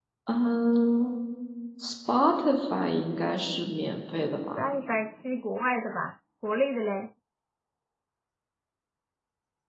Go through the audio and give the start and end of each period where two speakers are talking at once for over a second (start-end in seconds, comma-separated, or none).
none